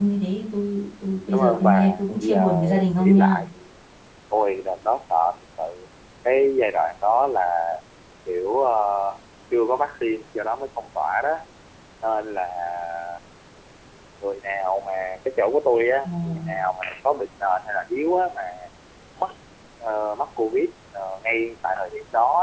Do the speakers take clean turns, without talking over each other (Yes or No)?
No